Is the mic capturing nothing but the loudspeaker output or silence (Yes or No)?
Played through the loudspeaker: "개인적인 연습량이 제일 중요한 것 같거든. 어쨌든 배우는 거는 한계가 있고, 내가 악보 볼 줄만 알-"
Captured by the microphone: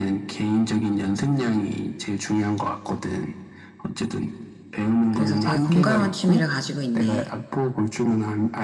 No